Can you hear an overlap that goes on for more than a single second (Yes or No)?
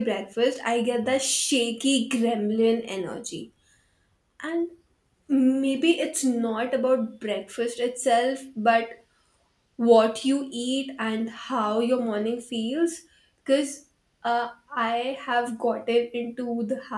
No